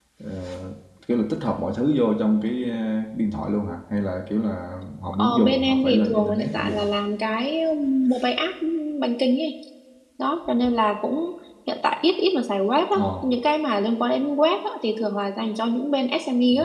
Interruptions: present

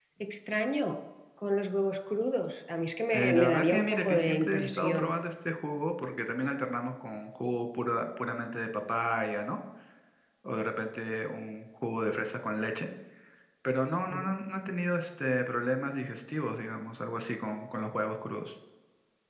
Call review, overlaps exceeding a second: present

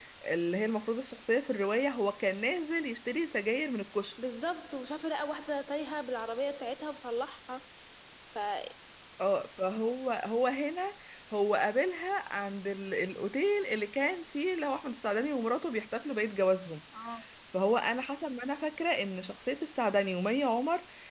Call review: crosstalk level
none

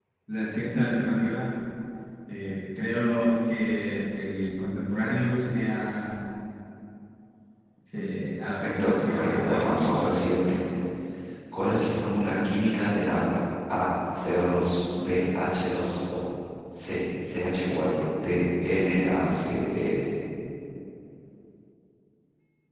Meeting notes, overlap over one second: present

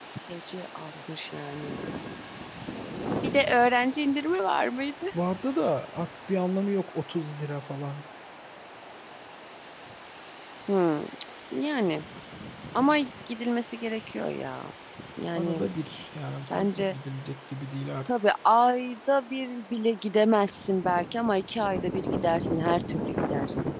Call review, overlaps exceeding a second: none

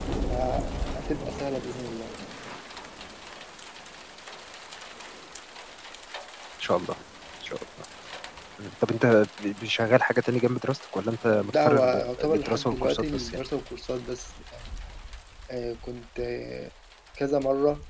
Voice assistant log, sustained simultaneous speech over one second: present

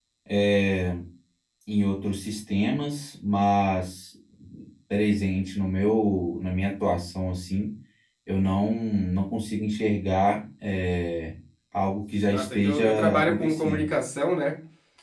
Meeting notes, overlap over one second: present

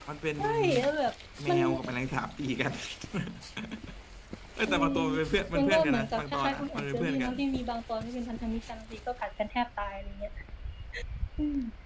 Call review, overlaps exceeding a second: present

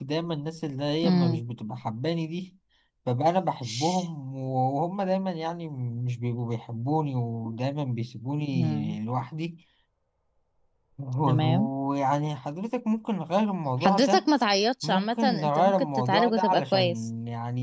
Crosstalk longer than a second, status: present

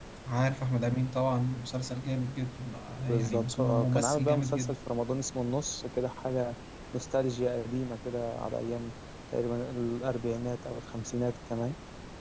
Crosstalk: present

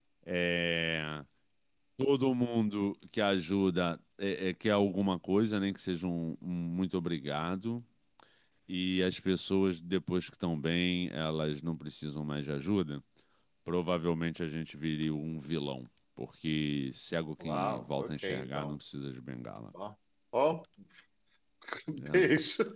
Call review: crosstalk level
present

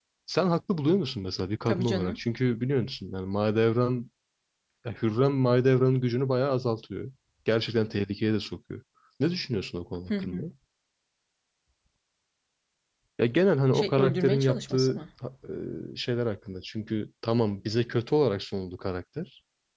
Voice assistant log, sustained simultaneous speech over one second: present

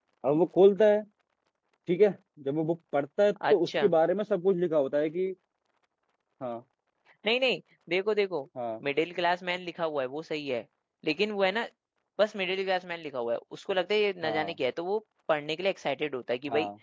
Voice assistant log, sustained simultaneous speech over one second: none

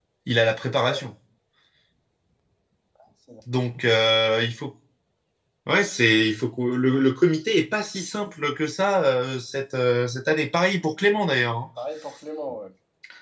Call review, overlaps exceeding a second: none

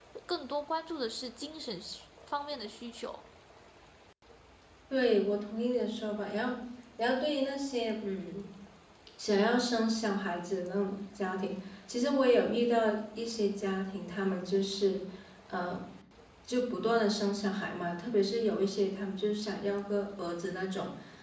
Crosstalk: none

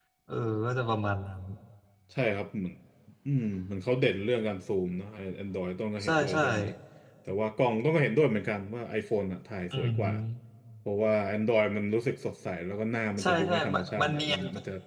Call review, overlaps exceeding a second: present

